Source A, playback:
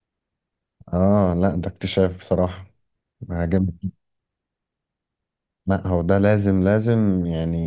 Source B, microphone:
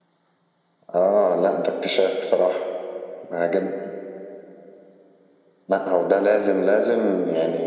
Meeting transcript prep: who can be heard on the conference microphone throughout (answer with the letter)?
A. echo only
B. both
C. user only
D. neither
A